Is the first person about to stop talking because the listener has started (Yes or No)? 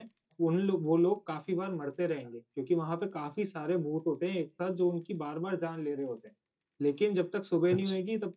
No